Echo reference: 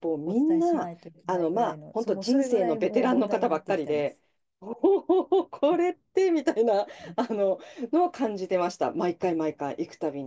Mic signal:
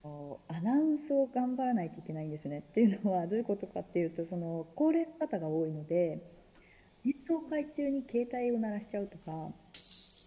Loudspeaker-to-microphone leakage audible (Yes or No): No